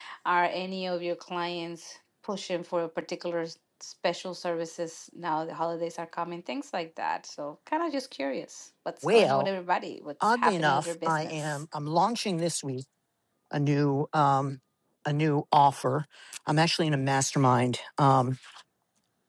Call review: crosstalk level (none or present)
present